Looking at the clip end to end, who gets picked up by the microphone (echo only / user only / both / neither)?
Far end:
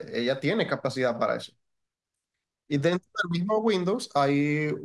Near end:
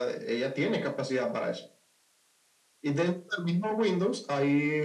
echo only